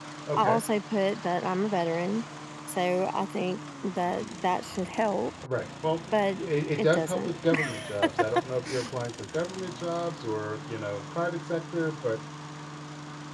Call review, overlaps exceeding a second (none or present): none